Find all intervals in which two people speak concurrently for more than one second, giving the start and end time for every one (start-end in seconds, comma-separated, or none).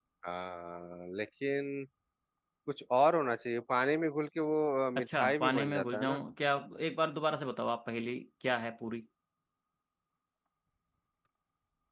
5.0-6.2